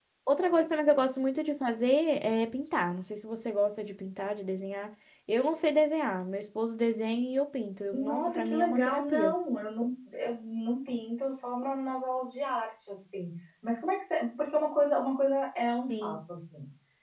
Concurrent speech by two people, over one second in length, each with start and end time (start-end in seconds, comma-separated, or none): 7.9-9.3